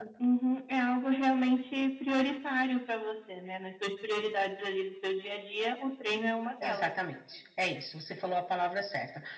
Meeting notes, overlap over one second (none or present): none